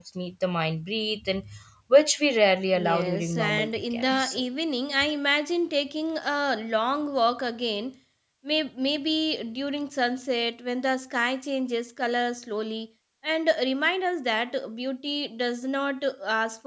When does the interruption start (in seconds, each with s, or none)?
2.7 s